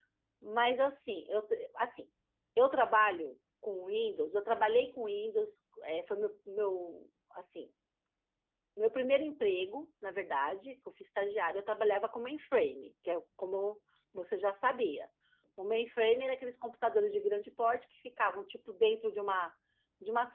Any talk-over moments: No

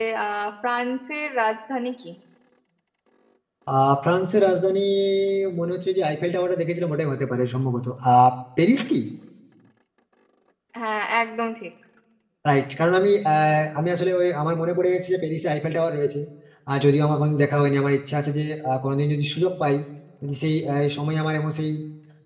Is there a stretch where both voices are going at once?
No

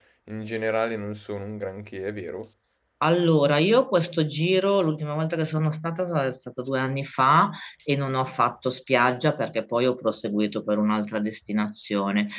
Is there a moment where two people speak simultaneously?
No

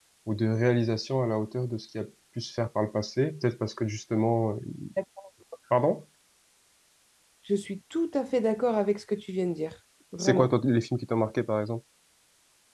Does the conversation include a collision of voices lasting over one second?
No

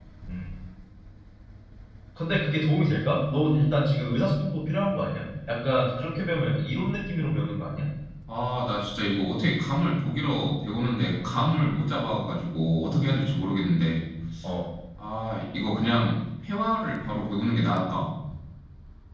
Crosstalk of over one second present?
No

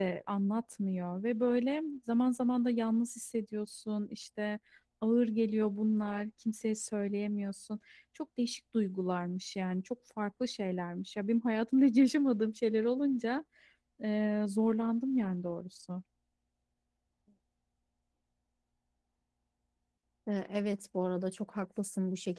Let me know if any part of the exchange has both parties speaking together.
No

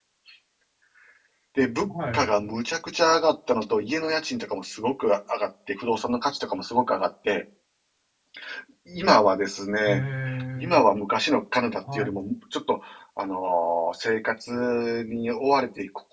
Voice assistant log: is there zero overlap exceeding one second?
Yes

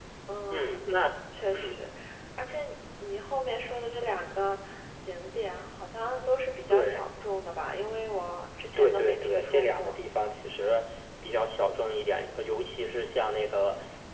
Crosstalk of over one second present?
Yes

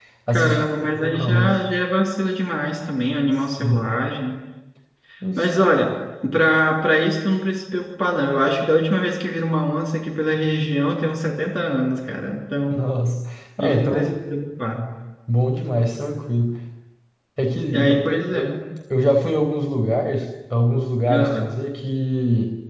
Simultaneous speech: Yes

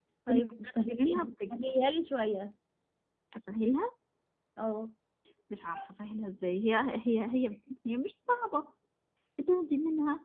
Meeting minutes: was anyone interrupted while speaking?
Yes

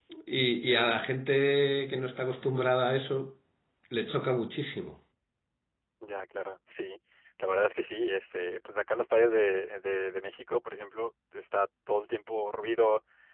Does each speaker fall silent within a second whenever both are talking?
Yes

